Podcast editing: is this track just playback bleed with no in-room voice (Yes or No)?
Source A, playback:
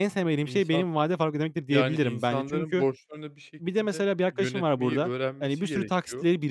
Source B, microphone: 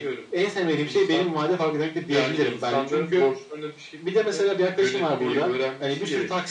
Yes